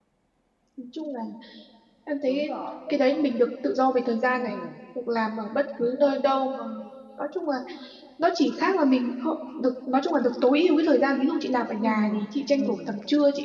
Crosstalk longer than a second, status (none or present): none